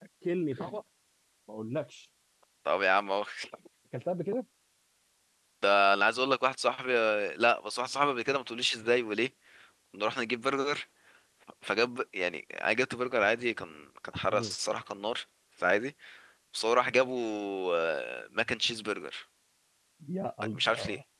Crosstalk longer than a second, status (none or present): none